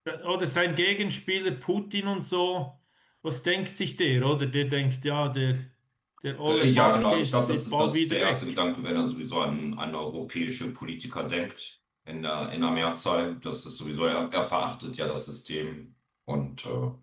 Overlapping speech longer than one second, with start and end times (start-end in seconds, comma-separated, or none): 6.5-8.5